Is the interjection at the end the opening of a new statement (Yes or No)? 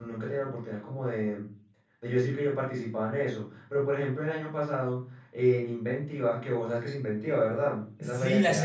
Yes